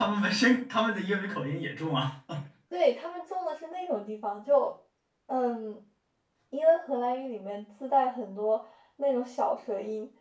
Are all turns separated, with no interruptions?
Yes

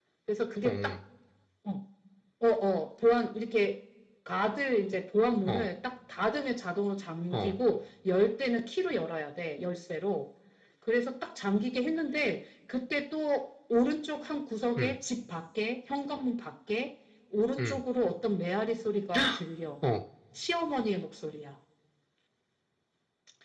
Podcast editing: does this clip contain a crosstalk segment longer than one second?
No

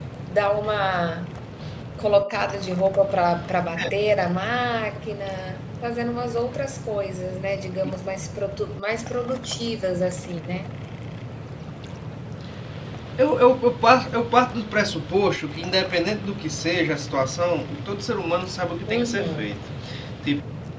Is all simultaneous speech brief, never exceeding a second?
Yes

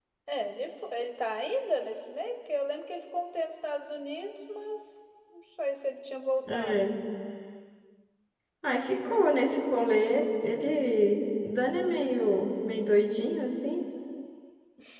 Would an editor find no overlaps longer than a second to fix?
Yes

